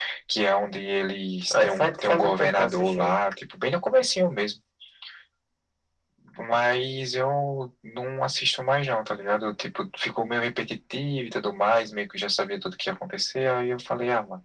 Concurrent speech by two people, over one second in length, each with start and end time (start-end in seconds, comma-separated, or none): 1.5-3.2